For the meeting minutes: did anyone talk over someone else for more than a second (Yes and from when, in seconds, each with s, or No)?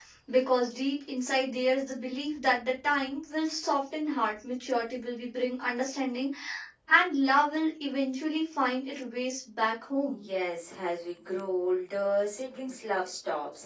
No